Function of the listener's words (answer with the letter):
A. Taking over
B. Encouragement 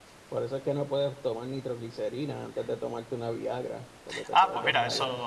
A